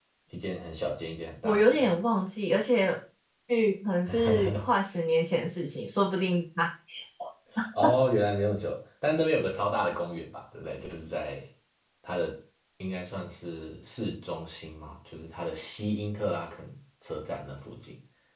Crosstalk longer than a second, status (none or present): none